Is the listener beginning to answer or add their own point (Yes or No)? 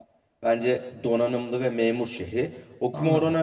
No